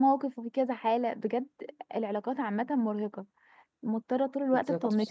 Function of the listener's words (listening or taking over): listening